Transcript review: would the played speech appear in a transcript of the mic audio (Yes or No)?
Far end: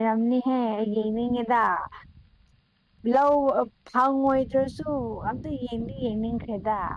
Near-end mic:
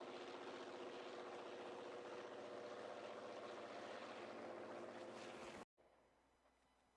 No